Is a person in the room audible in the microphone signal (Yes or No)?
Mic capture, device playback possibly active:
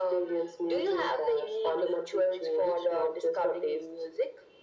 No